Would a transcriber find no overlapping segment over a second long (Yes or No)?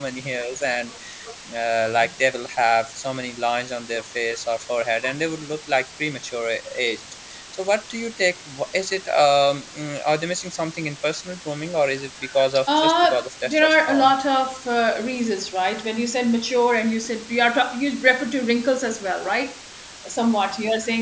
No